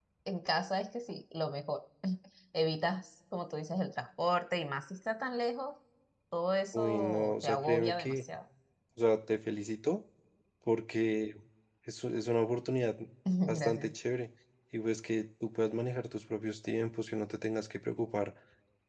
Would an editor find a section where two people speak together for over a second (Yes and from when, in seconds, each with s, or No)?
Yes, from 6.7 s